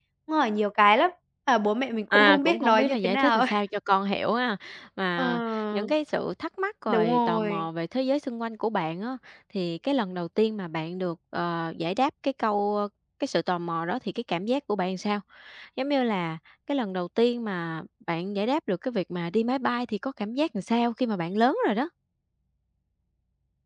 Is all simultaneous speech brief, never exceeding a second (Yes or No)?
No